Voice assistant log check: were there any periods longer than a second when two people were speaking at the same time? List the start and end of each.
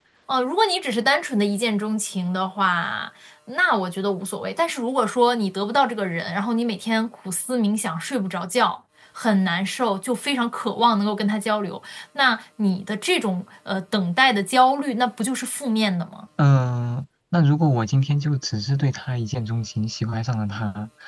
none

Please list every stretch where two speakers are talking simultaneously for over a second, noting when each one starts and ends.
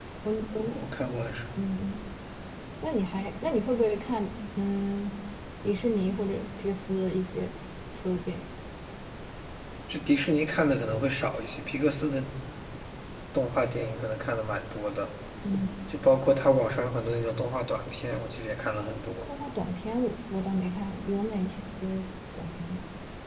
none

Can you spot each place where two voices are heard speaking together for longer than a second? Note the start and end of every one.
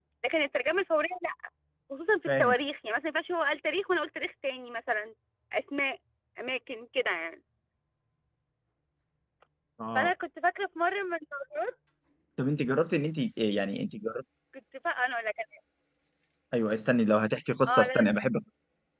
none

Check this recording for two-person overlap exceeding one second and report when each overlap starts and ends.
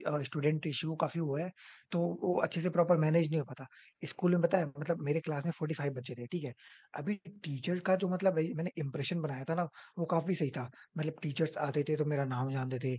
none

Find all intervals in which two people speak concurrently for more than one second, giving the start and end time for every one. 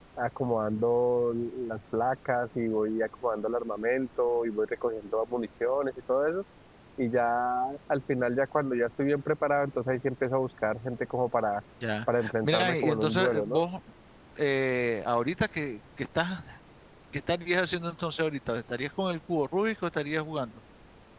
12.2-13.6

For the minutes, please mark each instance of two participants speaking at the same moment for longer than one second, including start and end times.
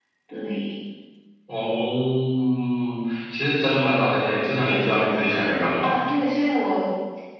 none

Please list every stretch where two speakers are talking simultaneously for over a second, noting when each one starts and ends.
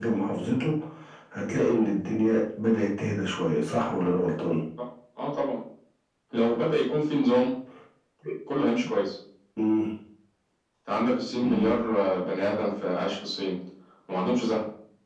none

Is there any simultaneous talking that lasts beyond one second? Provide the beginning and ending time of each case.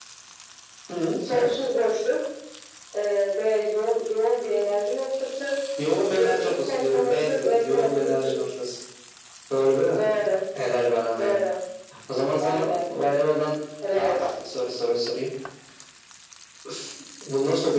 6.1-8.4

